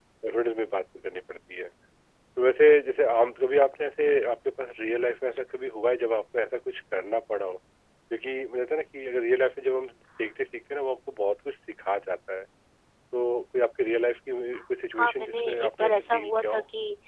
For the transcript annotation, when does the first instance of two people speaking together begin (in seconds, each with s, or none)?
15.0 s